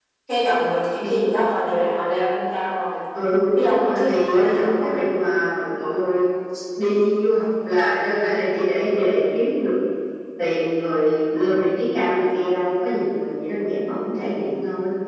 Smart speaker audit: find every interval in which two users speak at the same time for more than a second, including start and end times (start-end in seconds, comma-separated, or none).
3.6-5.0